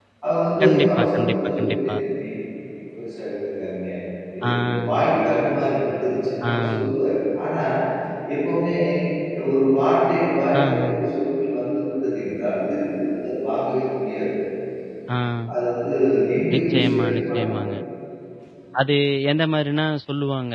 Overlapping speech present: Yes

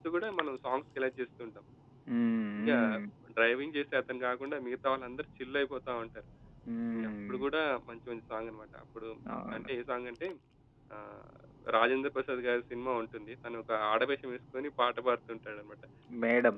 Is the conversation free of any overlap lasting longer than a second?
Yes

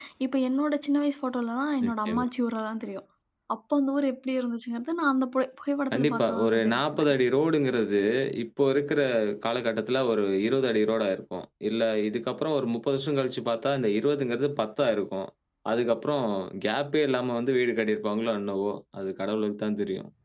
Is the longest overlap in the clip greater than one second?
Yes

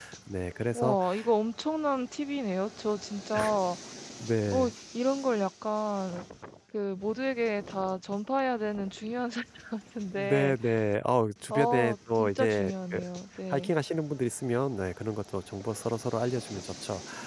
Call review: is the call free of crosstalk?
No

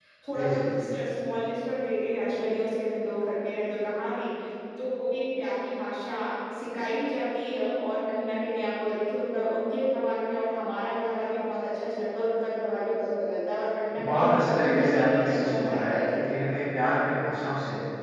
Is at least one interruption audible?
Yes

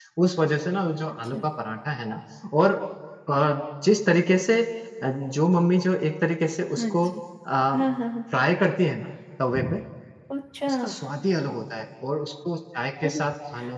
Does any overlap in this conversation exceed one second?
No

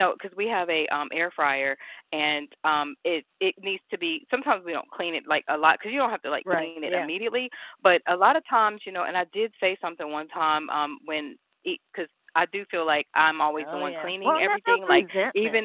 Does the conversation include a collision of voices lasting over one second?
Yes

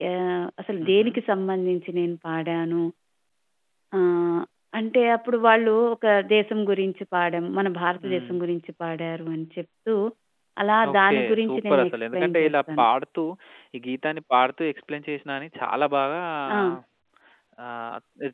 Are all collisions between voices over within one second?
No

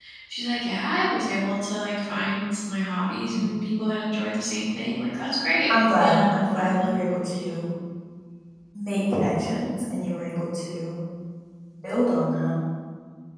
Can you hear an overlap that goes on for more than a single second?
Yes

